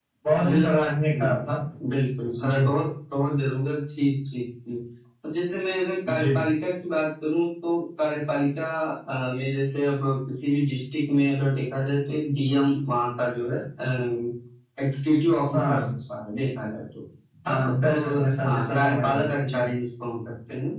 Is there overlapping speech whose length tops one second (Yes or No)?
Yes